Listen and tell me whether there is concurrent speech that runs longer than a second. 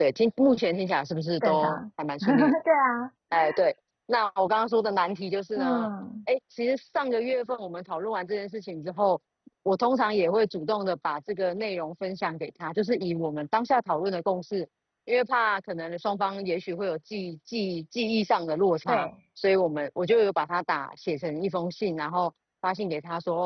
No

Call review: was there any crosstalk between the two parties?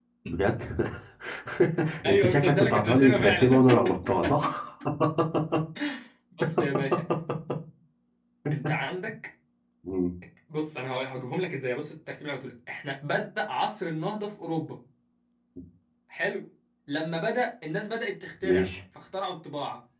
Yes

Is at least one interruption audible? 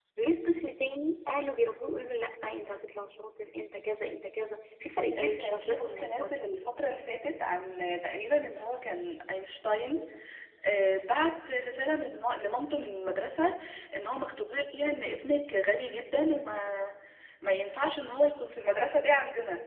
Yes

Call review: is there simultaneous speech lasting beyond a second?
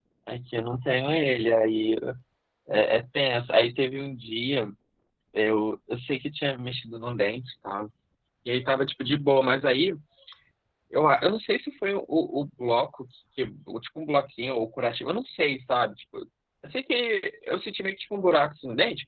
No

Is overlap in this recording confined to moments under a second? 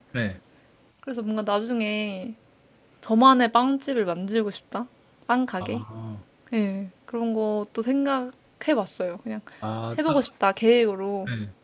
Yes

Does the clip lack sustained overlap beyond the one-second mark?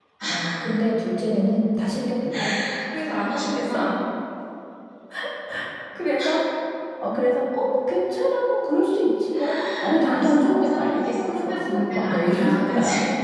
No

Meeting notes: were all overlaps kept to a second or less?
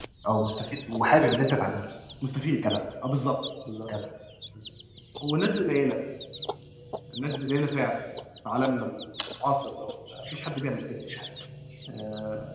Yes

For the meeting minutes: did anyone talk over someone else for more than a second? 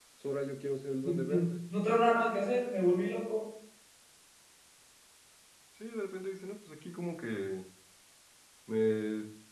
No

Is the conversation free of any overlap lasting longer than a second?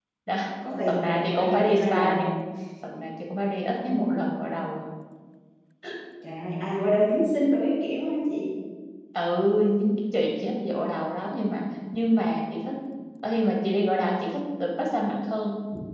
No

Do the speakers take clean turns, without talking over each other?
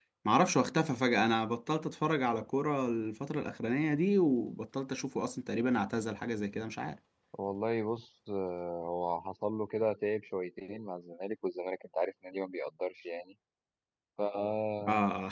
Yes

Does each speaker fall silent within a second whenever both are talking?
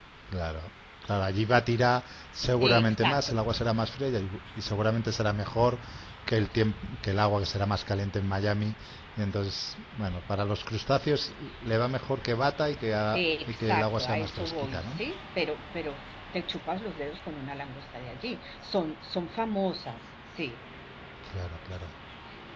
No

